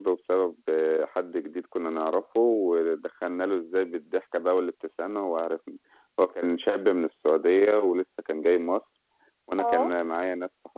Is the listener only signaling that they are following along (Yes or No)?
Yes